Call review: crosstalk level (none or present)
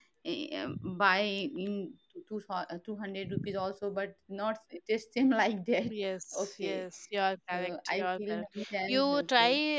present